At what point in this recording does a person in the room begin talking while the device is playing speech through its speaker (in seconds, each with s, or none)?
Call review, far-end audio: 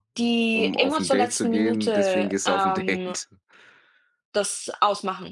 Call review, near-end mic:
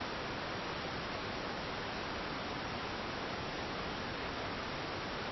none